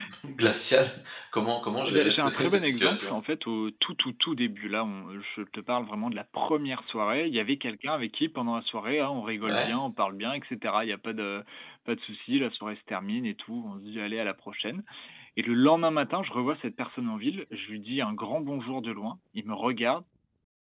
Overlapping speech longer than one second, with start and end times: 1.9-3.1

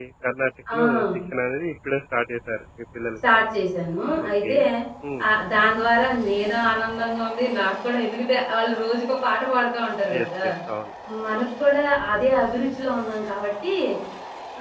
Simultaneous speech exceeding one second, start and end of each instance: none

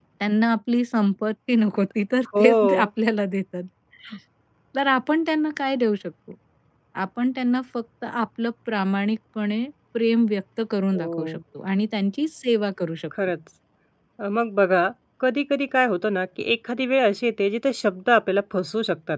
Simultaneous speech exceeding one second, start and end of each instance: none

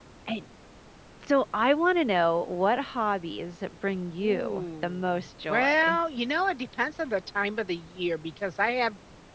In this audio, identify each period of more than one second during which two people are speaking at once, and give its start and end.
4.2-6.0

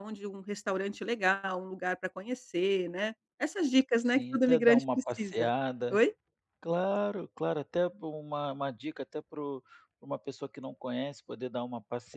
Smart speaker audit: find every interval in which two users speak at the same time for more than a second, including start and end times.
4.2-5.5

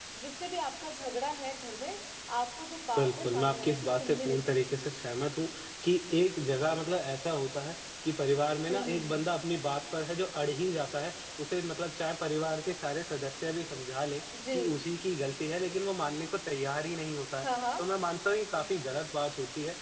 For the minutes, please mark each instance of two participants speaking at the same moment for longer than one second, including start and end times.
3.0-4.5

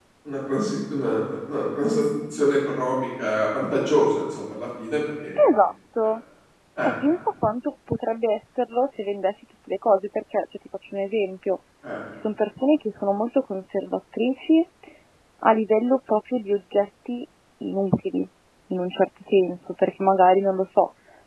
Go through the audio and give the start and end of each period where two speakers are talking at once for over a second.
none

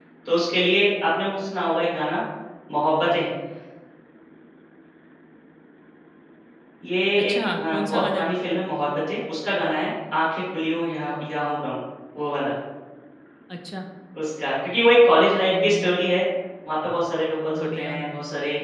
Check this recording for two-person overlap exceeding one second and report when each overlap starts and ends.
7.2-8.5

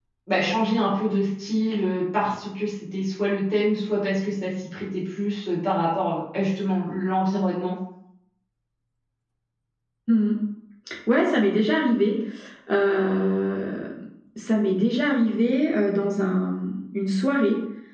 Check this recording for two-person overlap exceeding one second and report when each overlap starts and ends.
none

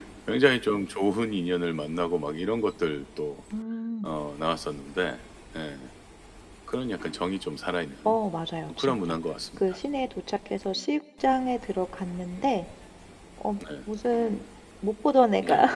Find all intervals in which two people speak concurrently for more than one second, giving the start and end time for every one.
none

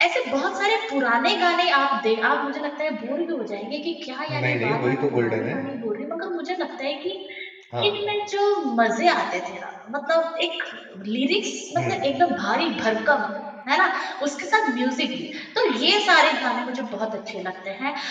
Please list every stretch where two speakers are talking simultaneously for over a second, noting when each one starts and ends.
4.3-5.6

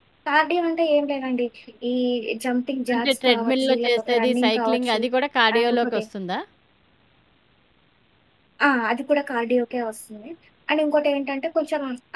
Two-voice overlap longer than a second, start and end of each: 2.9-5.0

